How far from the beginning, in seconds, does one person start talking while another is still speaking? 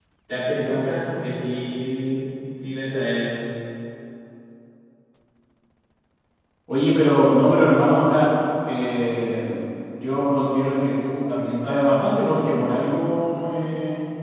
none

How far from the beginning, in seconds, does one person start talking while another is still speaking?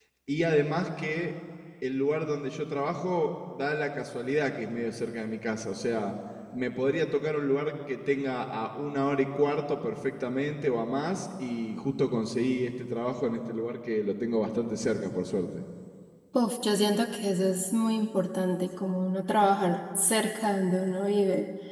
none

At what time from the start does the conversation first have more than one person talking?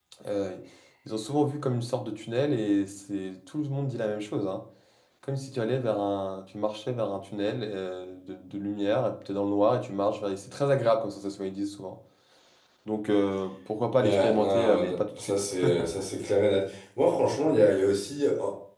14.0 s

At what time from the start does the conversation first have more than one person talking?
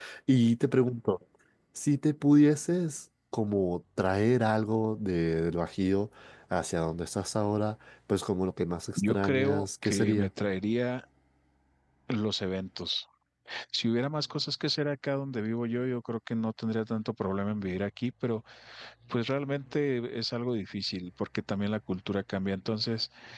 9.0 s

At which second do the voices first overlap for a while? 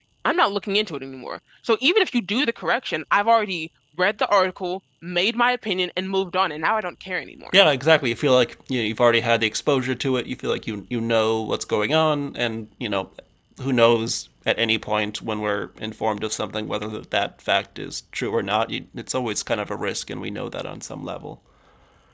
none

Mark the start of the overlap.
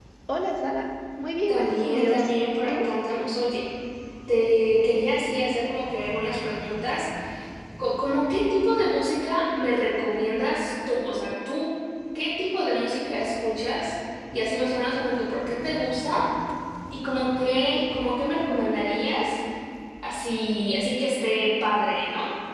1.5 s

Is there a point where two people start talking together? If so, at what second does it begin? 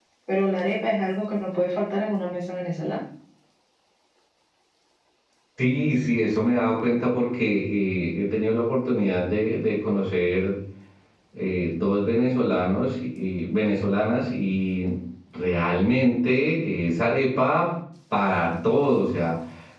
none

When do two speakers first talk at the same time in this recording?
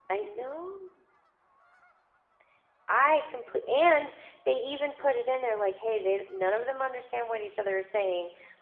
none

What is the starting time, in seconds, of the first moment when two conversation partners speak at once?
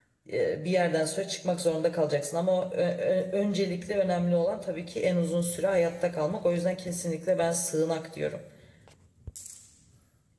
none

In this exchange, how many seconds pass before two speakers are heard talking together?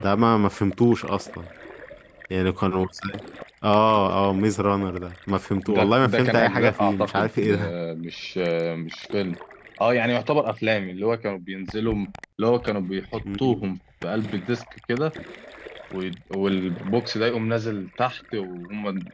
5.7 s

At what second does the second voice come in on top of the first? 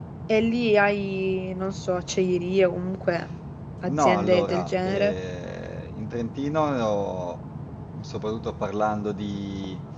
3.8 s

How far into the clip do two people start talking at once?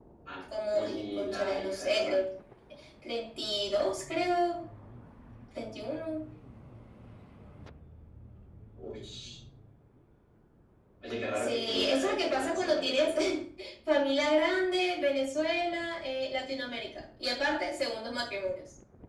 0.7 s

